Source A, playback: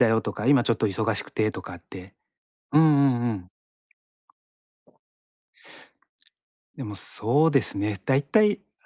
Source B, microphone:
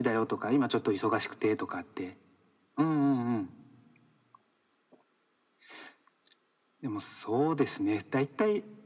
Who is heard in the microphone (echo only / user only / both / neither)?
echo only